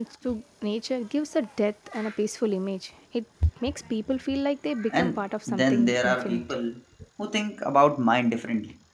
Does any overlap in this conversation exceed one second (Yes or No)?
Yes